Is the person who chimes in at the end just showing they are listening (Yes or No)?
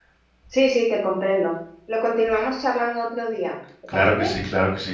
No